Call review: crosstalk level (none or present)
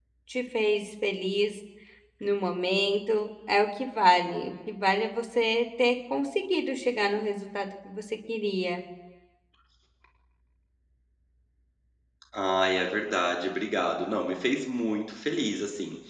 none